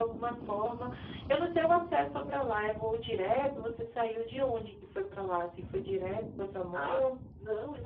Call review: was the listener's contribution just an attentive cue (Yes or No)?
No